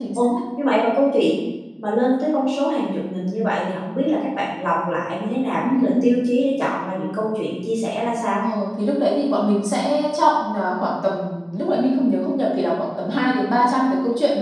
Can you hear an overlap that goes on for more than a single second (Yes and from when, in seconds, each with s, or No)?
No